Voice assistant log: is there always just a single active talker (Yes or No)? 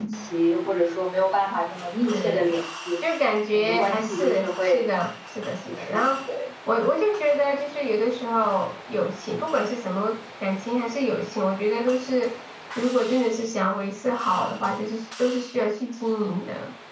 No